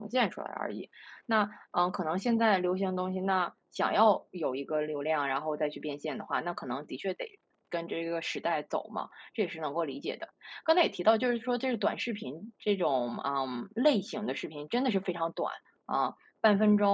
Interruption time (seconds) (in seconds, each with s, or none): none